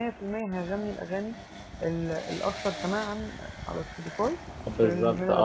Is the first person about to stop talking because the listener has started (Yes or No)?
Yes